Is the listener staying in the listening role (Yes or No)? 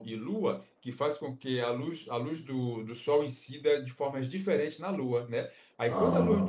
Yes